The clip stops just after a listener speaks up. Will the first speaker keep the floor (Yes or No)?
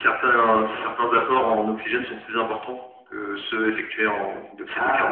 No